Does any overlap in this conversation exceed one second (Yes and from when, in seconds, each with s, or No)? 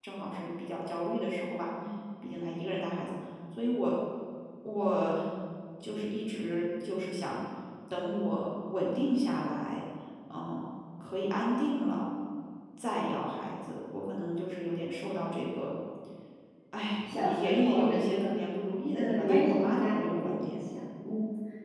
Yes, from 17.1 s